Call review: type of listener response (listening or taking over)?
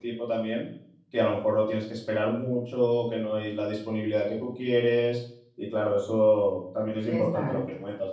listening